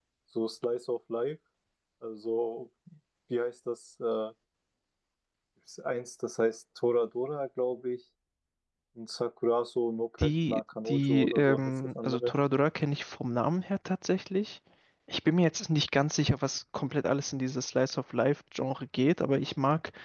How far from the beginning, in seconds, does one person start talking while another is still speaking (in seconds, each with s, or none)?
10.2 s